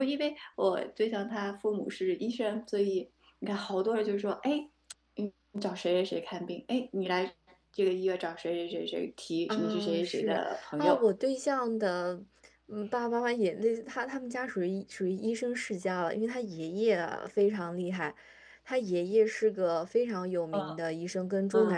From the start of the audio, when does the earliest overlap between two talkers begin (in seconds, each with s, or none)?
9.5 s